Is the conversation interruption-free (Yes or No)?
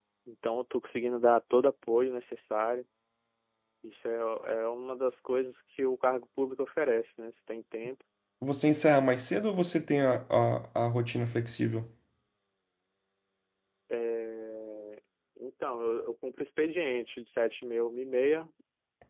Yes